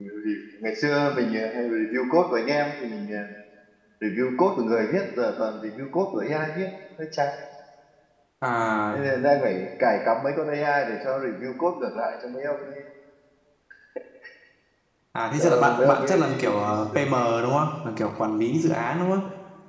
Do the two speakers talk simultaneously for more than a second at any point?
Yes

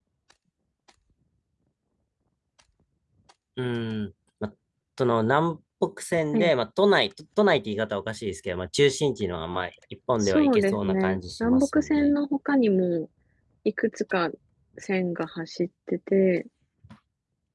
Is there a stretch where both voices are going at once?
Yes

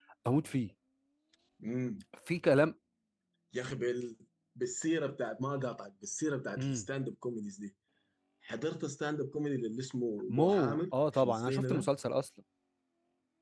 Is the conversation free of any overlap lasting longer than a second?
No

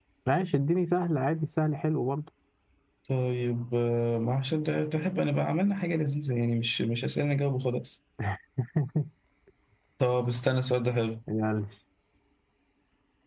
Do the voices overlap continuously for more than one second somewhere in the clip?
No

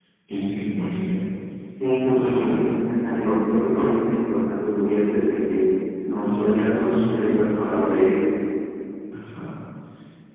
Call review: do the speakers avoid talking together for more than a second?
No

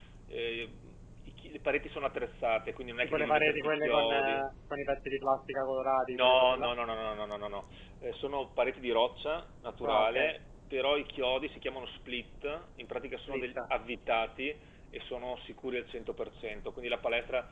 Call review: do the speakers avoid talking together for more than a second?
No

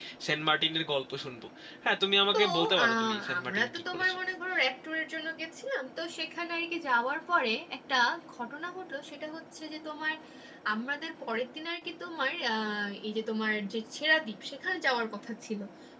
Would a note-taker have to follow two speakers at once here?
Yes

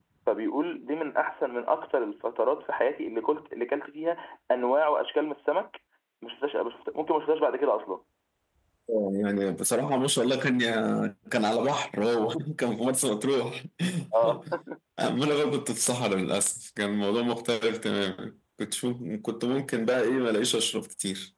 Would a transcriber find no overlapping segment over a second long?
Yes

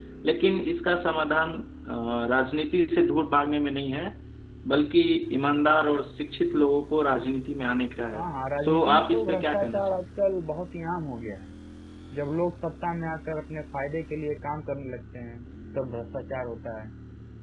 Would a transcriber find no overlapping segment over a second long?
No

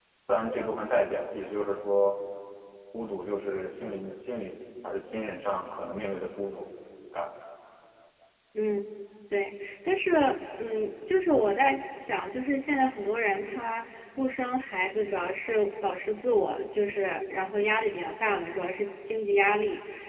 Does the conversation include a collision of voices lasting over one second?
No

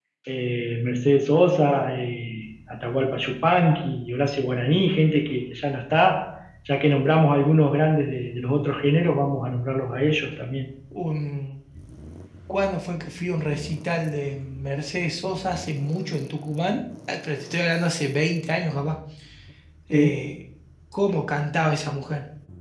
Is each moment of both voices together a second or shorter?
Yes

